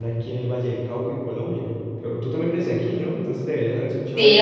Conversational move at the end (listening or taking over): taking over